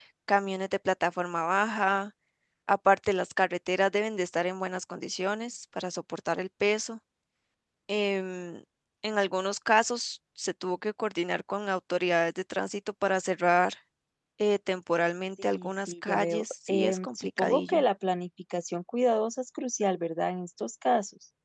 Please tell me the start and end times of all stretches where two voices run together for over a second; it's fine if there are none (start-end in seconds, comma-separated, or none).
15.4-17.8